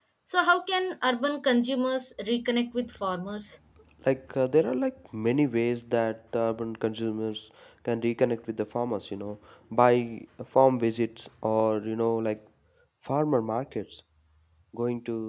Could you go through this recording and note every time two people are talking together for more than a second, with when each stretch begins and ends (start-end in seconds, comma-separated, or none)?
none